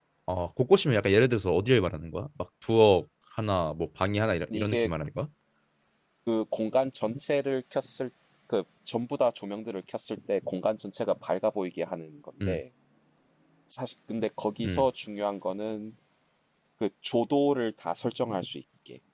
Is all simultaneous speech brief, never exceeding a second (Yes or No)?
Yes